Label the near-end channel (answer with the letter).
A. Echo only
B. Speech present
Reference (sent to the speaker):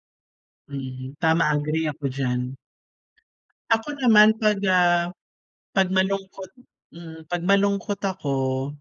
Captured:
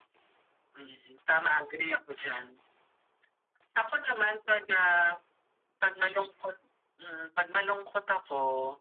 A